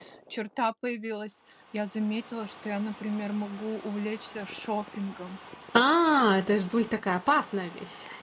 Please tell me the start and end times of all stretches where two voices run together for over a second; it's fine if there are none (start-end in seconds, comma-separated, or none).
none